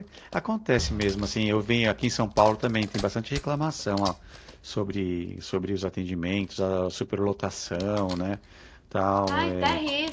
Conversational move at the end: taking over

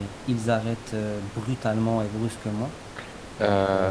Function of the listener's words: taking over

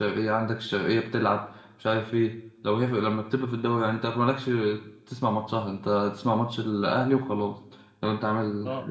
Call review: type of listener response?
taking over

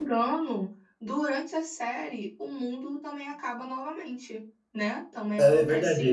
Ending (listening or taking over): taking over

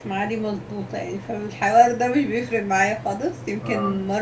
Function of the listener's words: listening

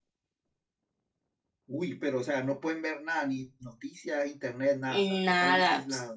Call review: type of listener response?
taking over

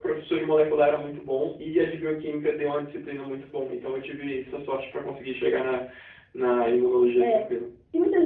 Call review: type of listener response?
taking over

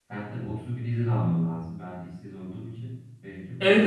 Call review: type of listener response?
taking over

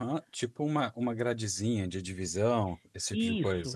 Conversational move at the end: taking over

